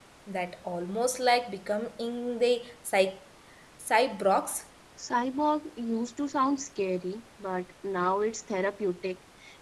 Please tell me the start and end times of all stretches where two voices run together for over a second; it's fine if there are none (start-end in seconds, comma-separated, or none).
none